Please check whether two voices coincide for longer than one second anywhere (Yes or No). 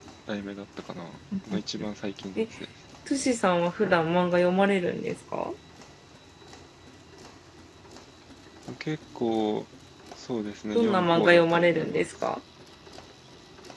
Yes